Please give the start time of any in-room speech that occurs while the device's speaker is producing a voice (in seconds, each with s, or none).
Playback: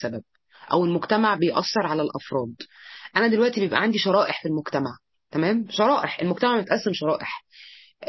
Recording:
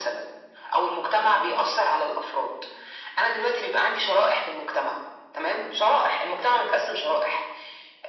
none